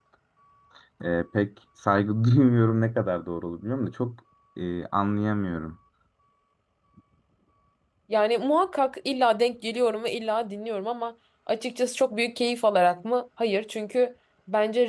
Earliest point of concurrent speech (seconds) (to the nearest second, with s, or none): none